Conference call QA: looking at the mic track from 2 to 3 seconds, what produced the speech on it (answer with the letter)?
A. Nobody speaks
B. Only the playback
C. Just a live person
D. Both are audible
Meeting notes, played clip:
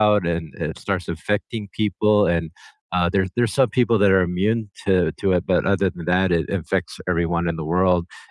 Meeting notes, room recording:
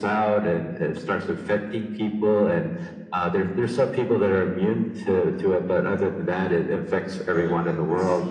B